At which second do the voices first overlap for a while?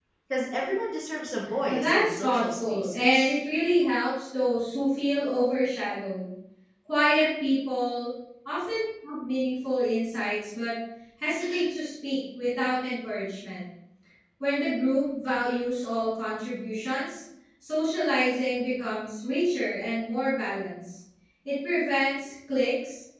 1.7 s

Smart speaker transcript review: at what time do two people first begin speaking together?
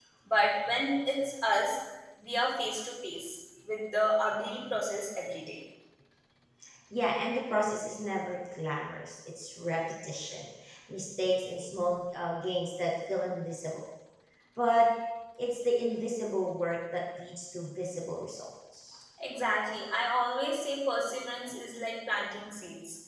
none

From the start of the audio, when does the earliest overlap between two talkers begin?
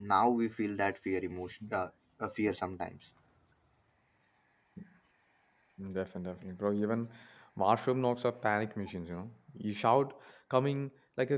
none

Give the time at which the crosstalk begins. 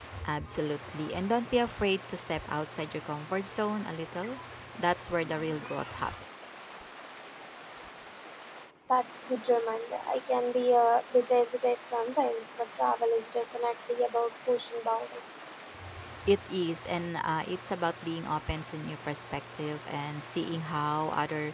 none

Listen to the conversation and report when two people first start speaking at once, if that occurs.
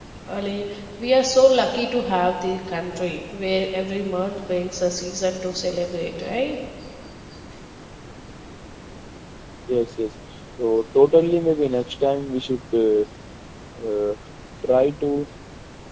none

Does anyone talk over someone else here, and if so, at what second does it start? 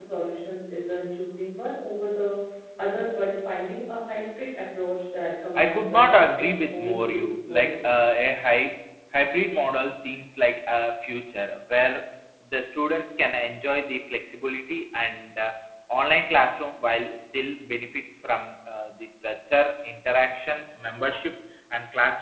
5.6 s

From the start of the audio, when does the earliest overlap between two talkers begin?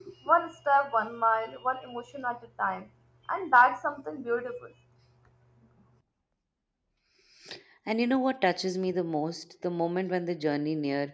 none

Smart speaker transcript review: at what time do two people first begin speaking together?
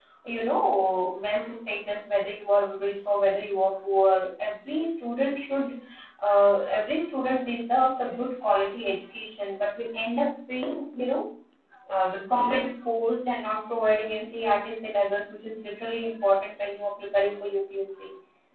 none

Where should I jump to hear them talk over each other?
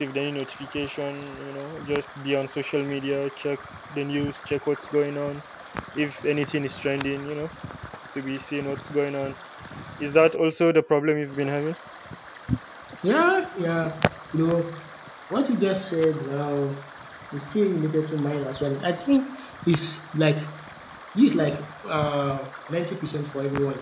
none

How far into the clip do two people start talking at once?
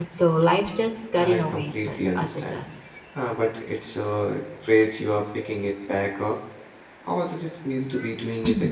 1.2 s

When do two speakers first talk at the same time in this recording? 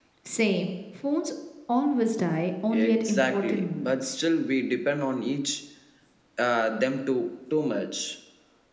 2.7 s

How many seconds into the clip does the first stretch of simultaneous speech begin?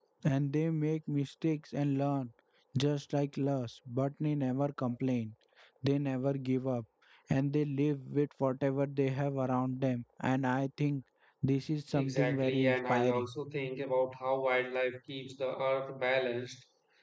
11.9 s

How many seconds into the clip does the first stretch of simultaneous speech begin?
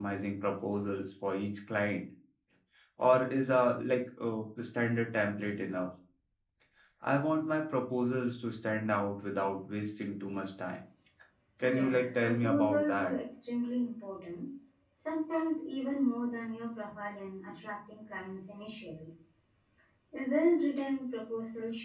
11.6 s

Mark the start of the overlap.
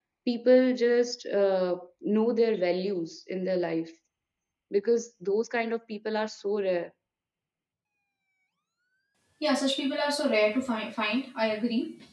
none

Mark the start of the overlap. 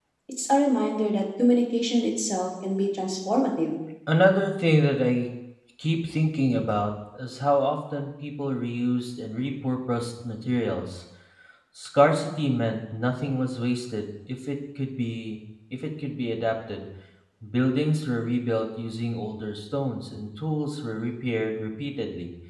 none

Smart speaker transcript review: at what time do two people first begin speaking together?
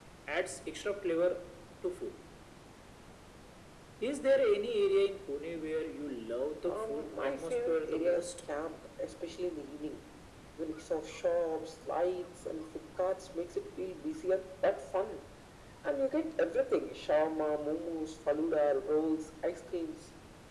6.7 s

